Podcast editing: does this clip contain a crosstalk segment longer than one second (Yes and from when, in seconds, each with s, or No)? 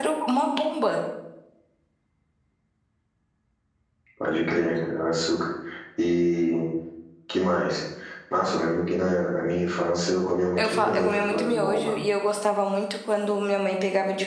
Yes, from 10.6 s